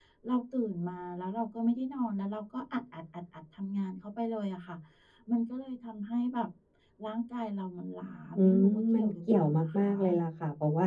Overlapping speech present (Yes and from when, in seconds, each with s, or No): Yes, from 8.4 s